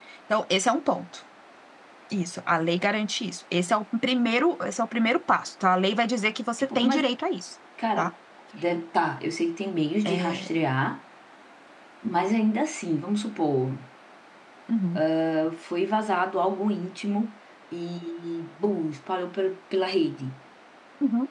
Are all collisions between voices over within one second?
Yes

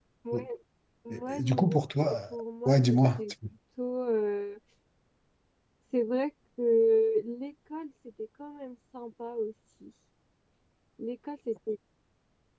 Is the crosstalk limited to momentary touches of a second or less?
No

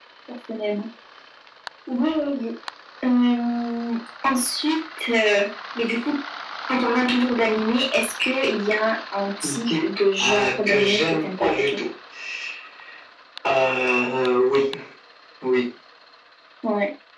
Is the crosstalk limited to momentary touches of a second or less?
No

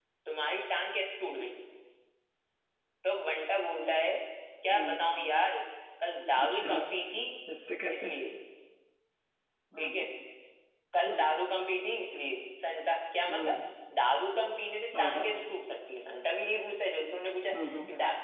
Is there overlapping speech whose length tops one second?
No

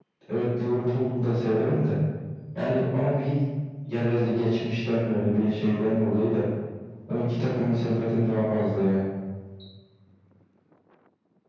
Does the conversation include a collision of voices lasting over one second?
No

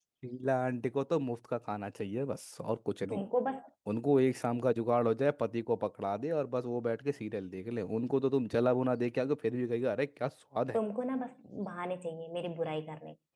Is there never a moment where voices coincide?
Yes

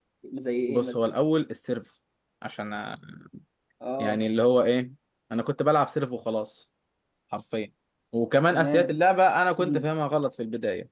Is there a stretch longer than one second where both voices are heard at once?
No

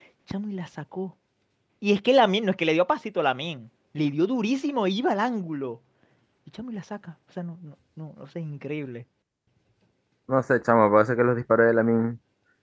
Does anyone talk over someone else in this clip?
No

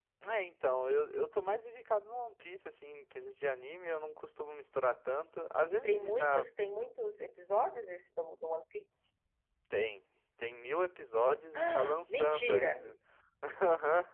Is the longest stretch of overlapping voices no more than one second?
No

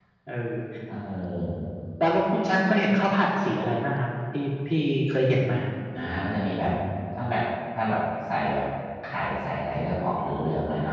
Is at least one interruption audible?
No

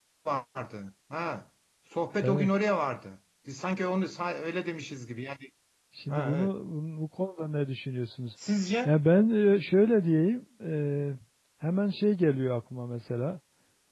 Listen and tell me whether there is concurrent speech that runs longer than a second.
No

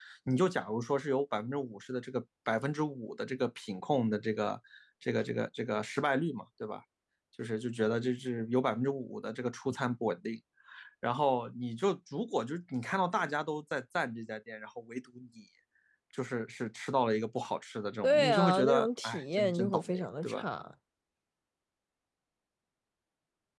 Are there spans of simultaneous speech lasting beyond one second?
Yes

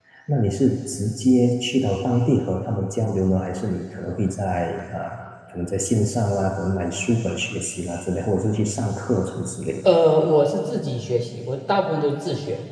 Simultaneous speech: No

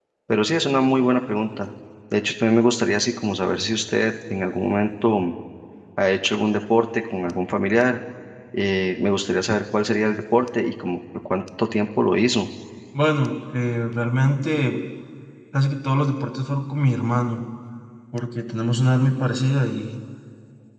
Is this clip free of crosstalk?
Yes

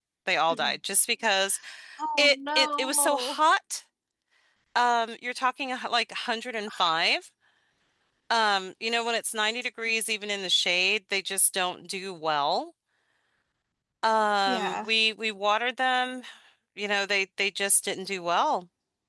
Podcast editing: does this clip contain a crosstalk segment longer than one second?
Yes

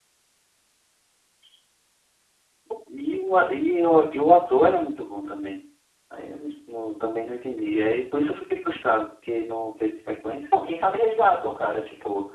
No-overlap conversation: Yes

